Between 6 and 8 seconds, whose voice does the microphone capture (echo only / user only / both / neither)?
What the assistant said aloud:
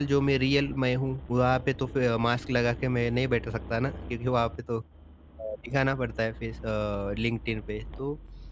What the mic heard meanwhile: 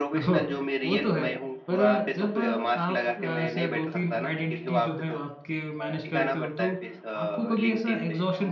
both